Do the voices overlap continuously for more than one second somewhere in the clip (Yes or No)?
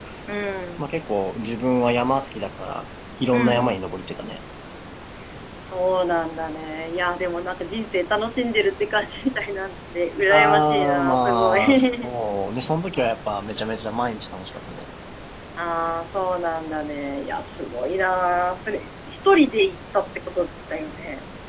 Yes